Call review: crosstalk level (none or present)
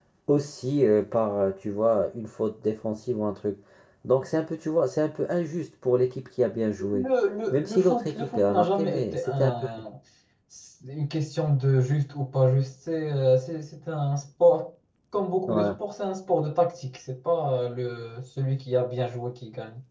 present